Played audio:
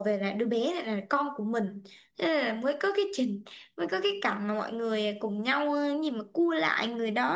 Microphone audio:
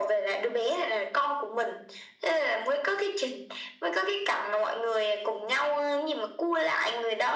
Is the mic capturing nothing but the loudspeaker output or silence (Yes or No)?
Yes